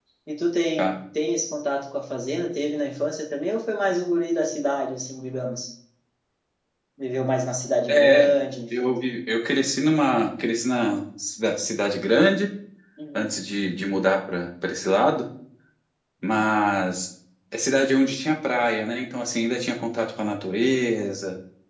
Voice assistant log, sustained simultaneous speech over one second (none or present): none